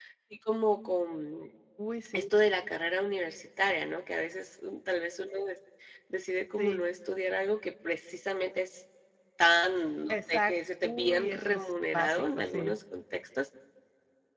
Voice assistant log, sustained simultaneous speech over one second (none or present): present